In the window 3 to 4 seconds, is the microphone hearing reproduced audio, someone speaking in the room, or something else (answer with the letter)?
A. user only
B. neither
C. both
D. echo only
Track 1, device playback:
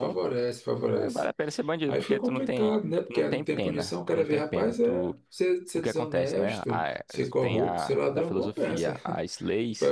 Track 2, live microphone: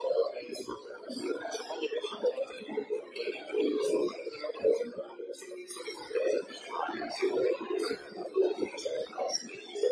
D